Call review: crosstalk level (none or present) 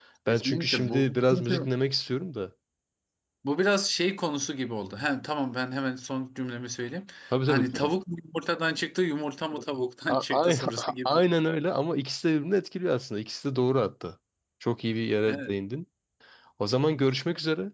present